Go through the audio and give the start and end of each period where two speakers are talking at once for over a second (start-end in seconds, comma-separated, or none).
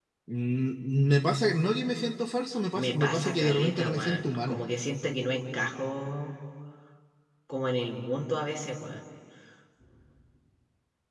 2.7-4.6